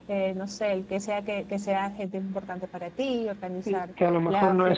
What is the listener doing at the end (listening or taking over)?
taking over